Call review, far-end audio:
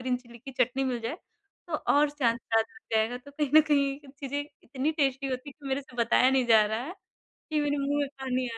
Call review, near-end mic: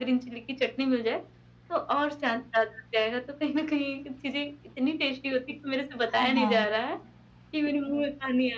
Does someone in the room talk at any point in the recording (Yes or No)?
Yes